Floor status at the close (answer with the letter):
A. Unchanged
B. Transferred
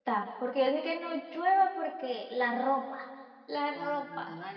B